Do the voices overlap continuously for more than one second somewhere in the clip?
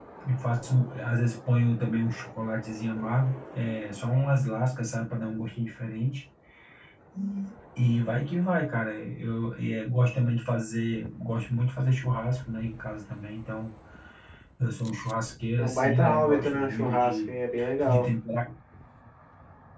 Yes, from 15.6 s

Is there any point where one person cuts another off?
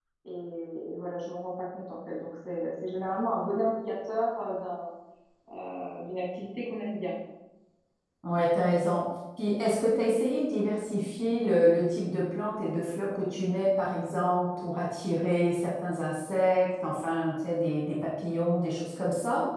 No

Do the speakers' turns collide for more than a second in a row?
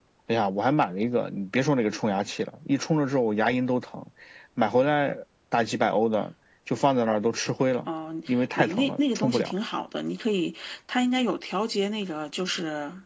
Yes, from 8.3 s

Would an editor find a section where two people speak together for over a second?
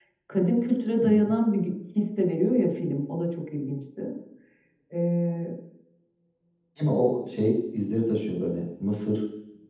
No

